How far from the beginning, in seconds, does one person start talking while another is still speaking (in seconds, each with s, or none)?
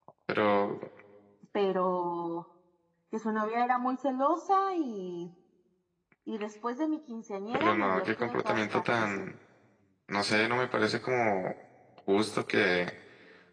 7.5 s